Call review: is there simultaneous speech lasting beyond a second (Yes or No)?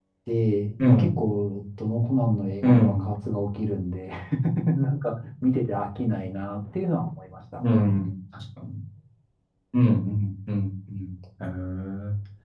No